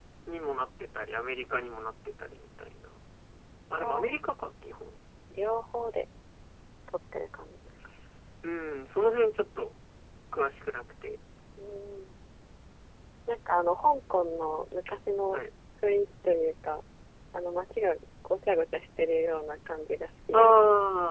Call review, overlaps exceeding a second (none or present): none